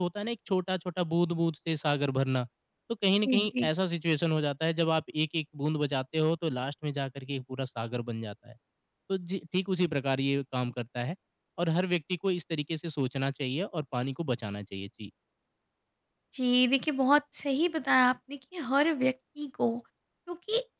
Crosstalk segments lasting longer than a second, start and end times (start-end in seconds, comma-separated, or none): none